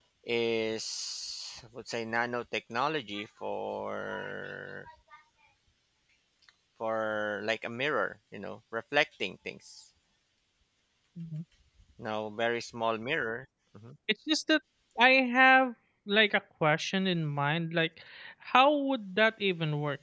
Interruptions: none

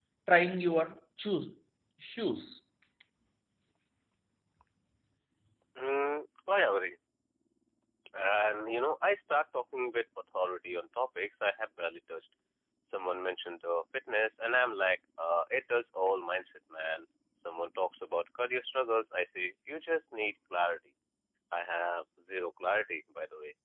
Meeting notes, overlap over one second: none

